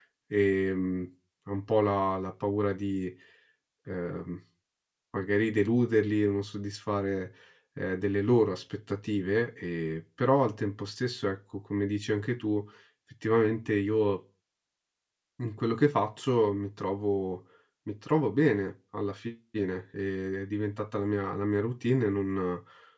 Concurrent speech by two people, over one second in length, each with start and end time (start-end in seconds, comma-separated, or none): none